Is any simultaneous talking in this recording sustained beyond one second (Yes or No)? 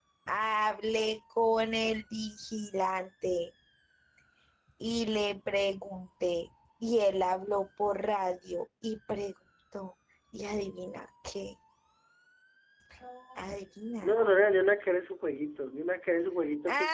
No